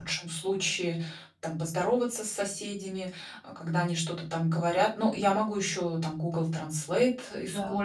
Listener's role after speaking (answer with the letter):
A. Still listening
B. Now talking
A